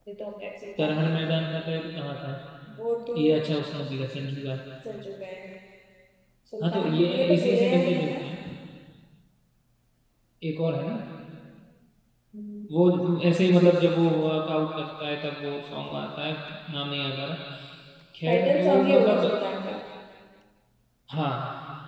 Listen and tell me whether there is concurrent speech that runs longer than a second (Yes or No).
Yes